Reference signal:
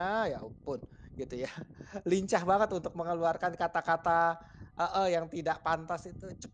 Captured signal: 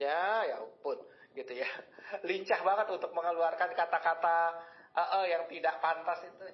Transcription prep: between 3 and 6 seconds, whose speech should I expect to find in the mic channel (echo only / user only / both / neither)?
echo only